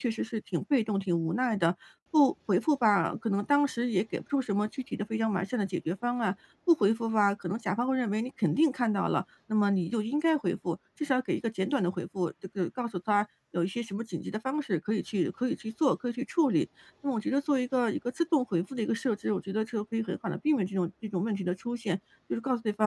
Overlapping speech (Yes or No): No